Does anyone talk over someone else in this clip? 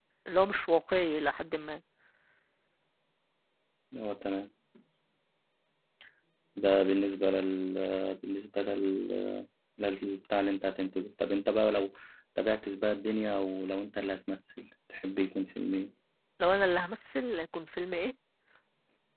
No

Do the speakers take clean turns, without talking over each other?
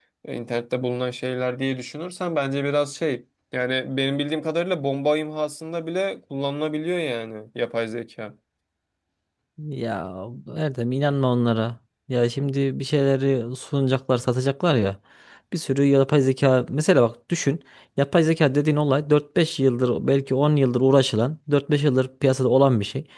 Yes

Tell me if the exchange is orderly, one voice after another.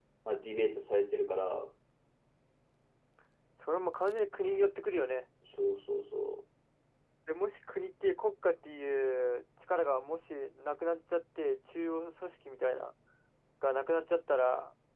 Yes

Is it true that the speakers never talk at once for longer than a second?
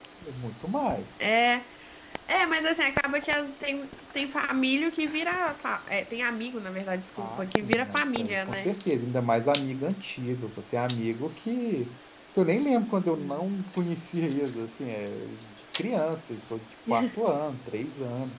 No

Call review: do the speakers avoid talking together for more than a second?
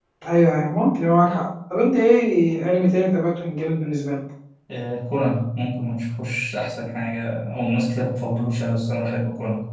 Yes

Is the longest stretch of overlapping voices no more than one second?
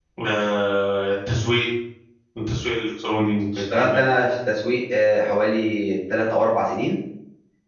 Yes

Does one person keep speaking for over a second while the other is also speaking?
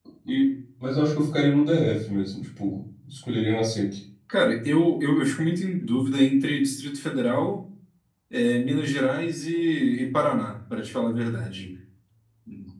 No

